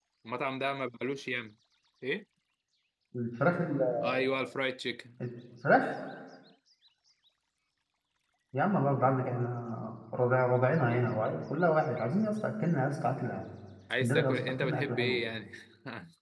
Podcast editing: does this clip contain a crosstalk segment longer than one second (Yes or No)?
Yes